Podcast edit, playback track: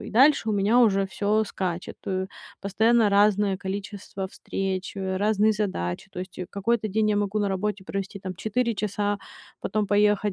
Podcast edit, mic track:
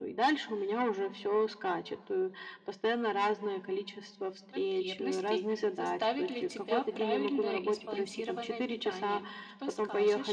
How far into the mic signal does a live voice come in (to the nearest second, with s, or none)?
5 s